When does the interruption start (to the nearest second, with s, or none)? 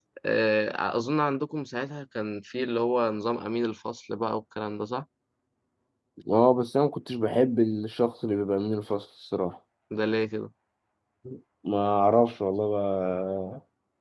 none